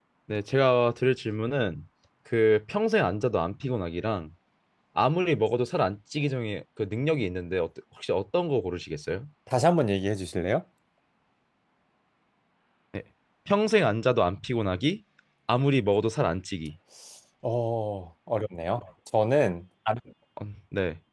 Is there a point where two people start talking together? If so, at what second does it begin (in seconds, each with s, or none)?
none